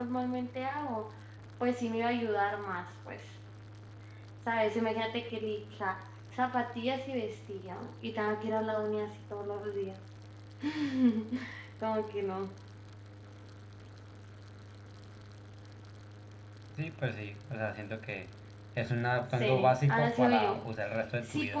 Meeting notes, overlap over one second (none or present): present